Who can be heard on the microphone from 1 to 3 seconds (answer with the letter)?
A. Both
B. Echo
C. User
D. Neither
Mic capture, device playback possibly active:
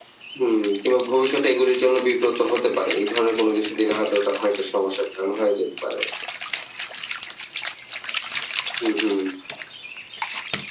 B